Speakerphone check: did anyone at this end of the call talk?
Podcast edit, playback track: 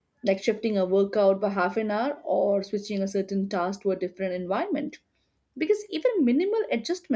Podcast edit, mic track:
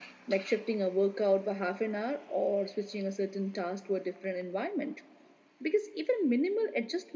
No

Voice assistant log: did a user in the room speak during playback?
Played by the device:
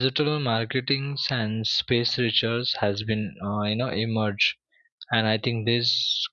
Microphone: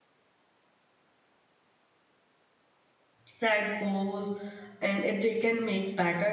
Yes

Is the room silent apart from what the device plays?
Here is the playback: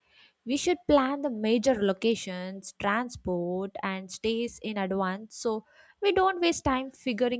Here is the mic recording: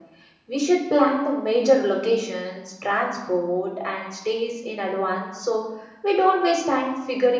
Yes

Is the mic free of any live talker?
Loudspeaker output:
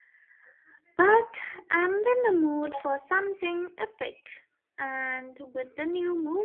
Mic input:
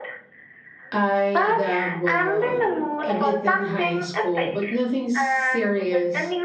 No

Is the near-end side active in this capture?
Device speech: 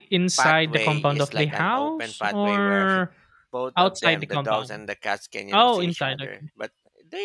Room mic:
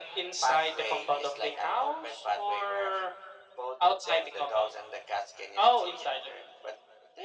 No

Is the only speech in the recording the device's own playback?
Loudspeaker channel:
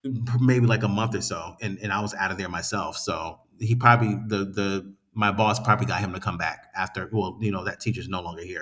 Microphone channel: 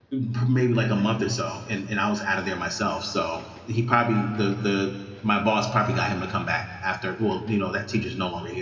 Yes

